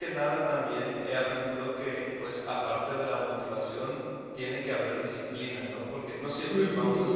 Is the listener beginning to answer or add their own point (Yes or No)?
Yes